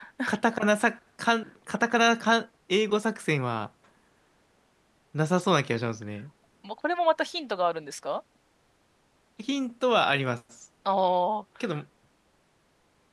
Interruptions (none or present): none